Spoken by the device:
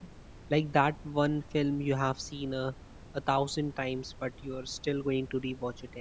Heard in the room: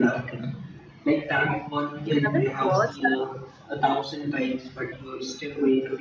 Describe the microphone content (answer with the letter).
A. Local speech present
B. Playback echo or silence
A